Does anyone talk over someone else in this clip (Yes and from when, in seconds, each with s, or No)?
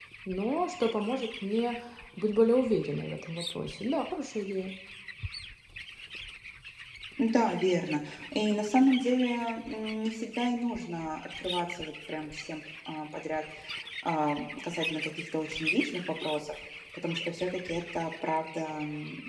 No